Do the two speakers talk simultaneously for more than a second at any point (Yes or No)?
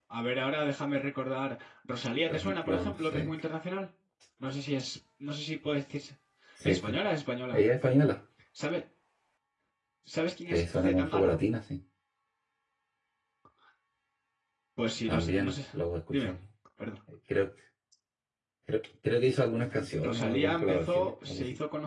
Yes